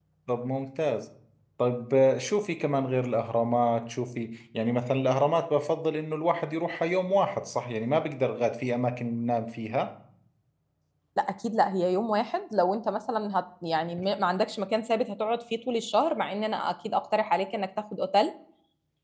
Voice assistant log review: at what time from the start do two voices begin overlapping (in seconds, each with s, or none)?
none